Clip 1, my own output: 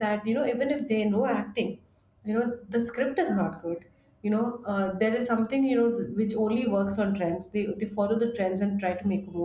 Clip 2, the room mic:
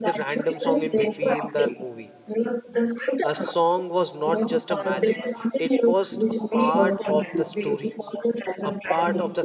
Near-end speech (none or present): present